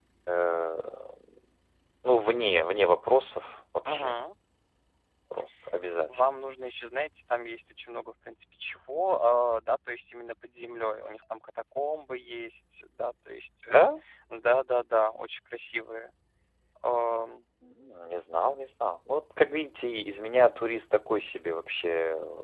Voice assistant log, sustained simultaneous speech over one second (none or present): none